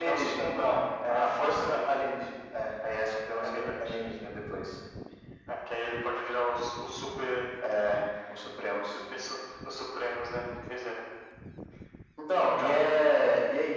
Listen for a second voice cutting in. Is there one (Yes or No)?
Yes